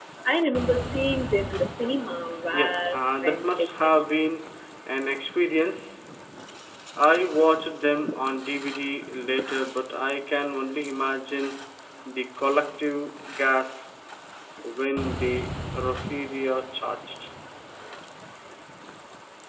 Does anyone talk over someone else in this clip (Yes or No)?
Yes